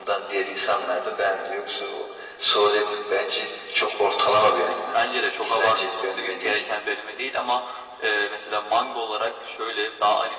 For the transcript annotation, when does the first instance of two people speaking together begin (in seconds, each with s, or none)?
5.4 s